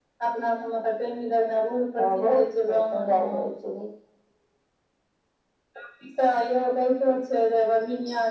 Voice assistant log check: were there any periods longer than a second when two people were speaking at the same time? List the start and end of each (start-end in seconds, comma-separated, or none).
2.0-3.5